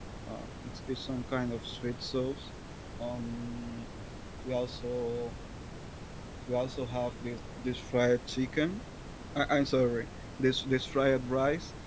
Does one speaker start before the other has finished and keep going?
No

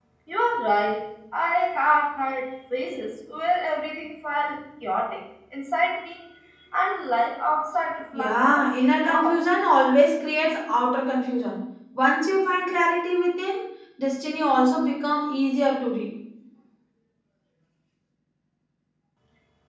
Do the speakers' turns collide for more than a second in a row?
Yes, from 8.1 s

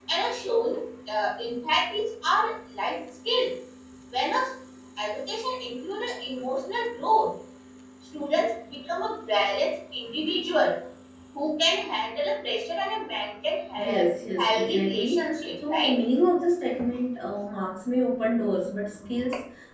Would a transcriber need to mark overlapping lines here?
Yes, from 13.8 s

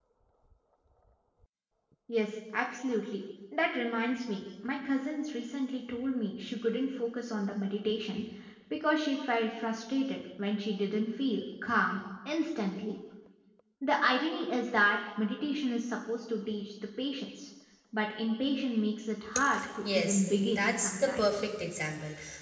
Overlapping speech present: Yes, from 19.9 s

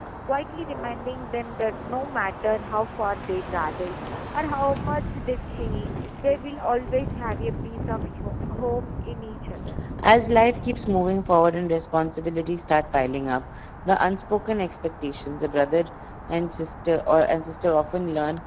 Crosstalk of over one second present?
No

